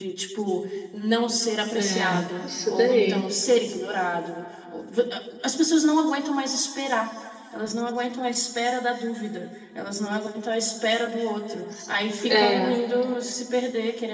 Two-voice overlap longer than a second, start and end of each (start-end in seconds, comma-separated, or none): 1.7-3.2